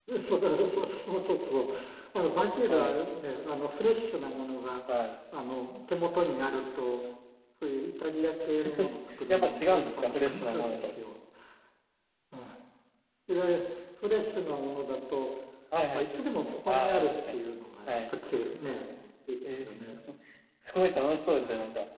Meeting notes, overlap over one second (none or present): present